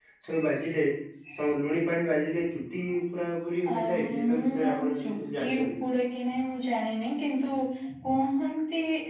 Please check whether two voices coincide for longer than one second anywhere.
Yes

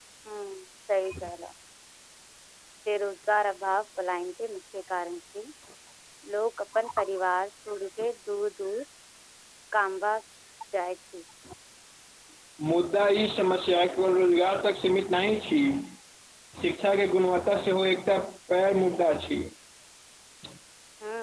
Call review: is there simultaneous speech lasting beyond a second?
No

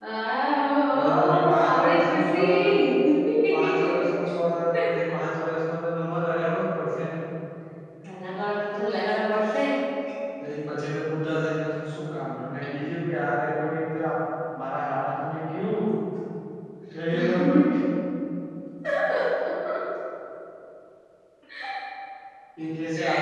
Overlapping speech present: Yes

